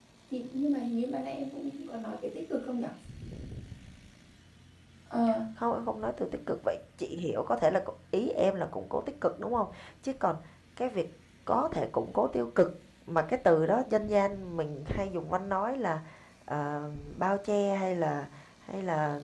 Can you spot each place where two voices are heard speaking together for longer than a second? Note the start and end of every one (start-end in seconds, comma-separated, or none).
none